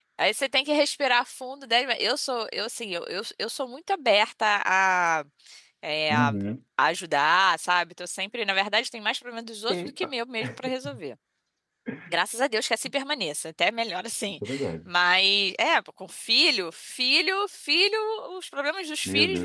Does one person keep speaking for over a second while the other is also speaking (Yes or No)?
No